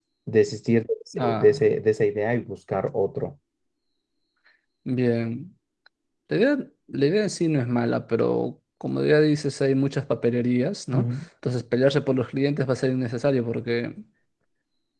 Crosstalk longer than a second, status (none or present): none